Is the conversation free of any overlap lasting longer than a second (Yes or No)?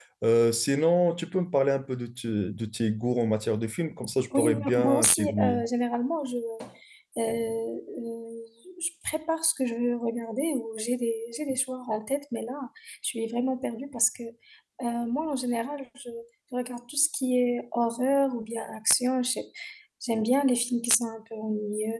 No